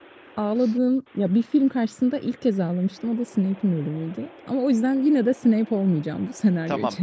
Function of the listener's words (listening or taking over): taking over